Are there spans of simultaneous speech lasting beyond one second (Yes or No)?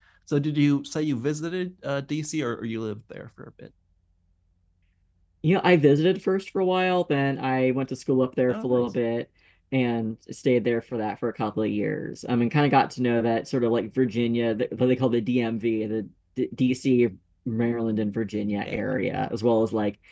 No